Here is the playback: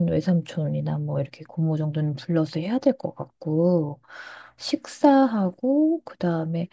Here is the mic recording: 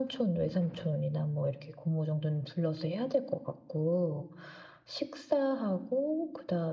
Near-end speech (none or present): none